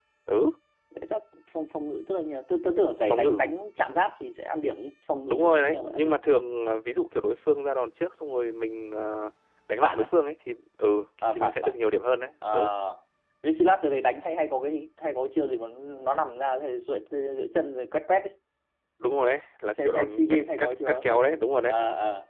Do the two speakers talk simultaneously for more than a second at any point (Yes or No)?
Yes